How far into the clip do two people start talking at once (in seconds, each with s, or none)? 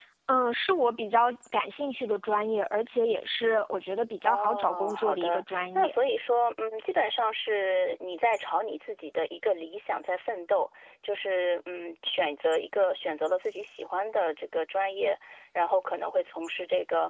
4.2 s